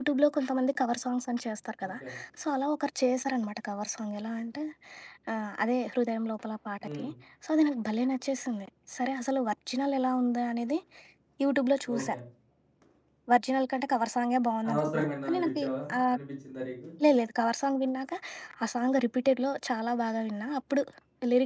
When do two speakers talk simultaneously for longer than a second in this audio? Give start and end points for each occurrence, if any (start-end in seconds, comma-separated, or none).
14.7-16.2